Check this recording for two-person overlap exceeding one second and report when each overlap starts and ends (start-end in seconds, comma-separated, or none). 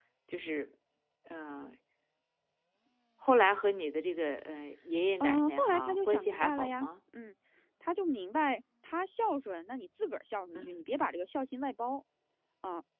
5.2-6.9